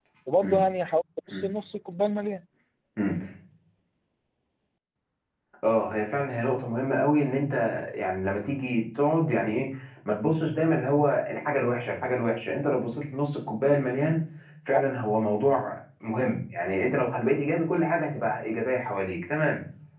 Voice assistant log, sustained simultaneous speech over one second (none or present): none